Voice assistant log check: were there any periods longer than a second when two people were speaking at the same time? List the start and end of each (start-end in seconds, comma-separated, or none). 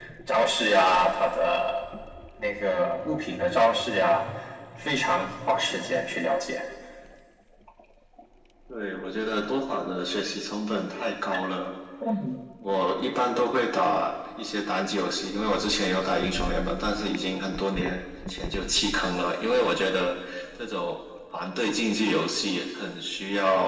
none